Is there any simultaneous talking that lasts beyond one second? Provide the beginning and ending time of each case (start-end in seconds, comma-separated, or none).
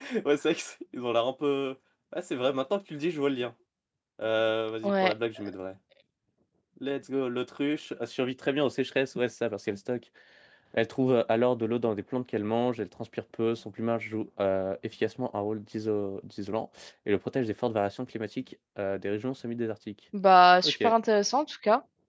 none